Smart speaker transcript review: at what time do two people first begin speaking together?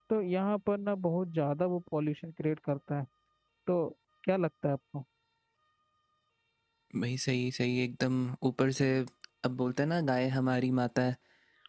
none

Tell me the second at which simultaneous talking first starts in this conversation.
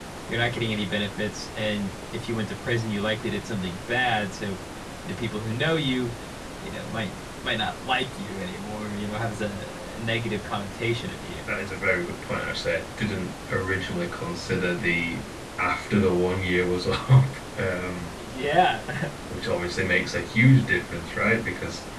none

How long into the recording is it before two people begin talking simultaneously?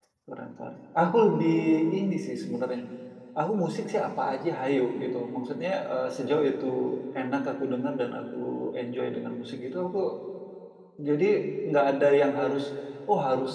none

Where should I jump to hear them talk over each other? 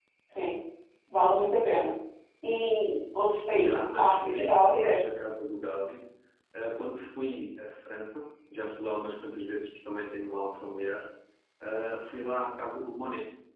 3.5 s

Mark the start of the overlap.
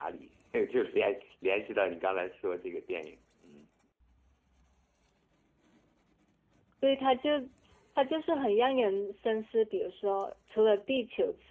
none

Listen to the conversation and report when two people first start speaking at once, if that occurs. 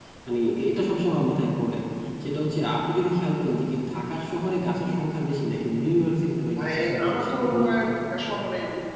6.4 s

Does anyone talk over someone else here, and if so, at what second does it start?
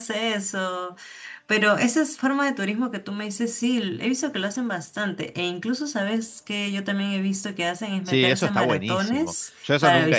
8.1 s

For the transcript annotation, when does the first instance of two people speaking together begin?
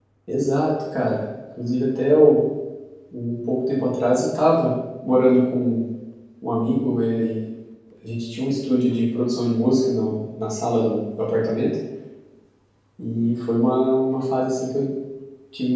none

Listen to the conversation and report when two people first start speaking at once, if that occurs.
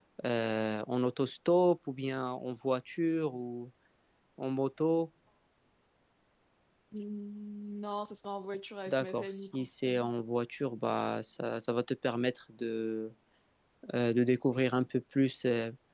8.9 s

